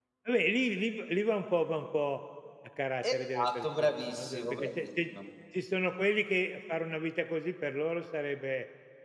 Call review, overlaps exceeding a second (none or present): present